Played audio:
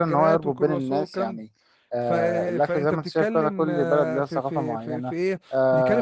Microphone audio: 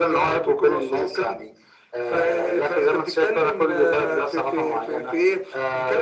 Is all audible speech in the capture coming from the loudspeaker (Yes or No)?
Yes